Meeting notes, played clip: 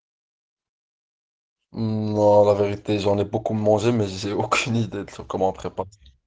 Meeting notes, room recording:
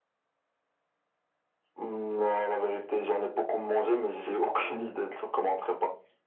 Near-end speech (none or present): none